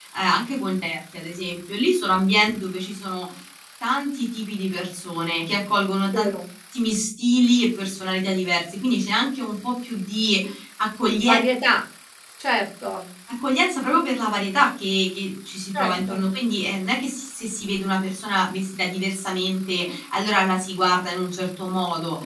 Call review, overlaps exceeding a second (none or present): none